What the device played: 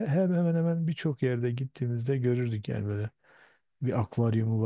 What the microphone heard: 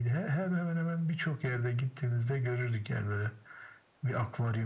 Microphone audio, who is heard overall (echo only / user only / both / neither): echo only